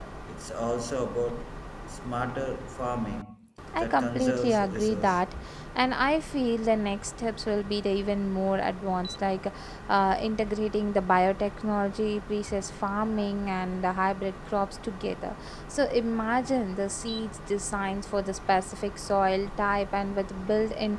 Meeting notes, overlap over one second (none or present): present